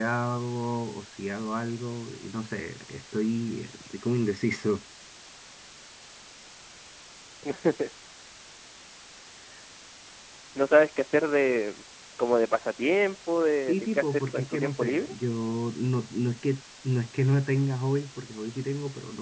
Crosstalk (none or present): present